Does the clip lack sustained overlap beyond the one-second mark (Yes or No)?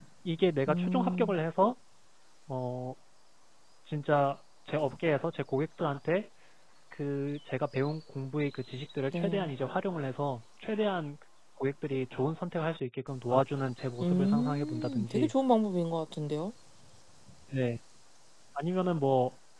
No